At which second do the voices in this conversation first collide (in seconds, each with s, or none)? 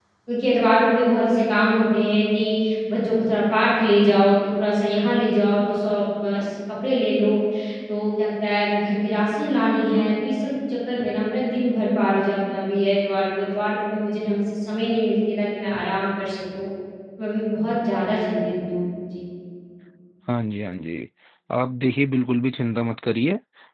none